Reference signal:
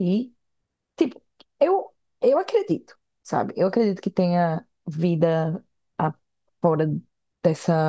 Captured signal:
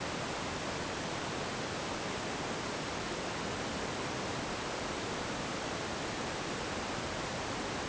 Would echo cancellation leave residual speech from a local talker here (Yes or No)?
No